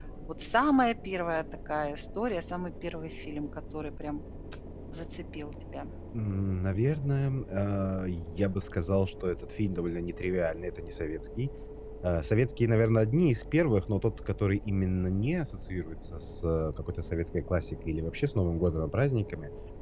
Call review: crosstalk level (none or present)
none